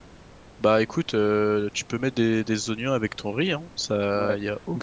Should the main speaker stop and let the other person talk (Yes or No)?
Yes